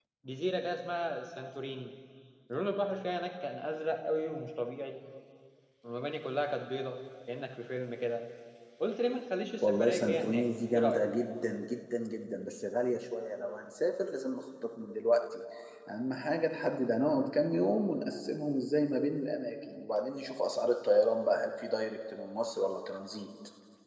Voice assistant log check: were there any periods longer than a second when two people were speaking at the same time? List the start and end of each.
9.6-11.1

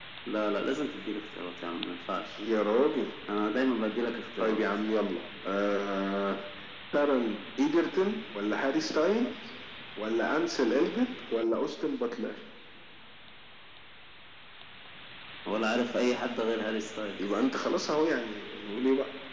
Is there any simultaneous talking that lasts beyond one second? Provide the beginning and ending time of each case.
none

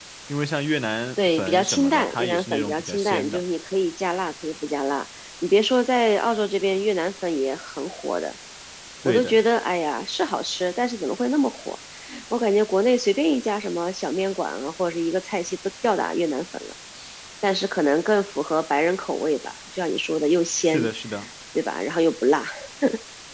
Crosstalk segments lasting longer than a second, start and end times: 1.2-3.4

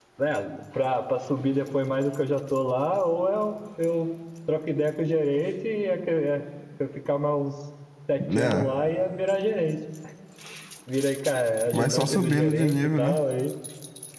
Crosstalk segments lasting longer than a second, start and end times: 11.7-13.2

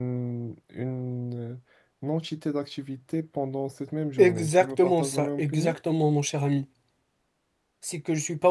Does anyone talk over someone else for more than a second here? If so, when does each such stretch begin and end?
4.2-5.8

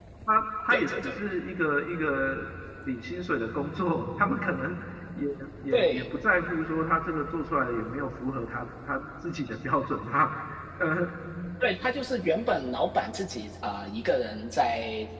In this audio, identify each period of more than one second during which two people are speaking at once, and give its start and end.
none

